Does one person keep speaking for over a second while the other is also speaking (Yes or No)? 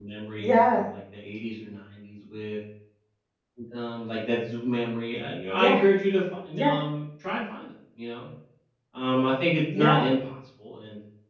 No